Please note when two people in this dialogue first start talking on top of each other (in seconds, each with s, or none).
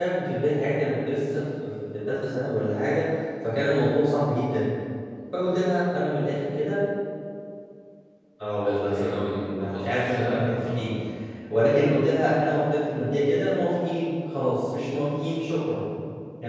8.6 s